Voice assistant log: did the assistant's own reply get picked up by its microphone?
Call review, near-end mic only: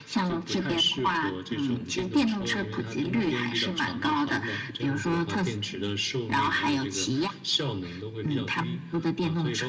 Yes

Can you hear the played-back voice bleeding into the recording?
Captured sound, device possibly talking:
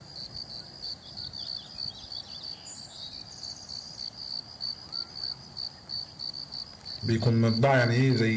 No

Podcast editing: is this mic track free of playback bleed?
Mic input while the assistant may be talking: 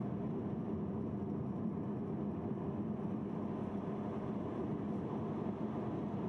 Yes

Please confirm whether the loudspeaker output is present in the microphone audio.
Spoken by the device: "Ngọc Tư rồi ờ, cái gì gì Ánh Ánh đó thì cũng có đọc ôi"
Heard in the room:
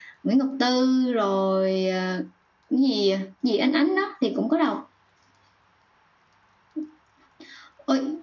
Yes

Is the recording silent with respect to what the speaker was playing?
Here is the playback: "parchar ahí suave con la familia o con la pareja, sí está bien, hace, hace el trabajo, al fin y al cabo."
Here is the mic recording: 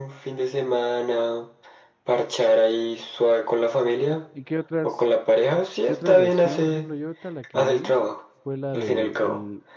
No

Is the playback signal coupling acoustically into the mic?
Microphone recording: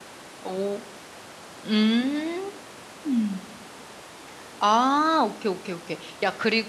No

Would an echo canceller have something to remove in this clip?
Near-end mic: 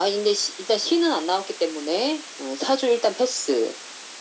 Yes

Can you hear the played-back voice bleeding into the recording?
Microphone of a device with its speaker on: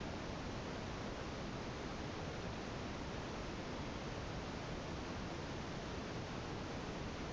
No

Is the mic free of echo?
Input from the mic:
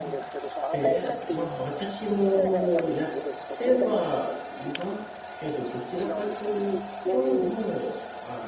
No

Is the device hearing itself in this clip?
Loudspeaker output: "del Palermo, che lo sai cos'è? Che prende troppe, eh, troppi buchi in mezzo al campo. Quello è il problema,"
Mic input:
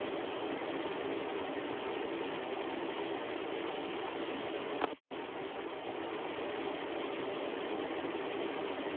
No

